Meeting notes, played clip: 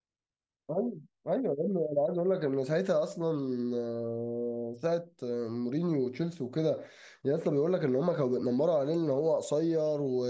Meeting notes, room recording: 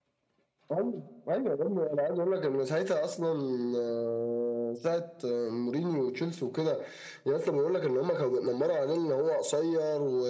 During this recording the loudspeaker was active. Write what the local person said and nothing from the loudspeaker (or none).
none